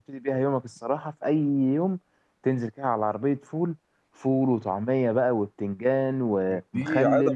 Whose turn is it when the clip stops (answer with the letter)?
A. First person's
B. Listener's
B